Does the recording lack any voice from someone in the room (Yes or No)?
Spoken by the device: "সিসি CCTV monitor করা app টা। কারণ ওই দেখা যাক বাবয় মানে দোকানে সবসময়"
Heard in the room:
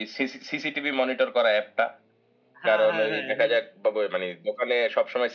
No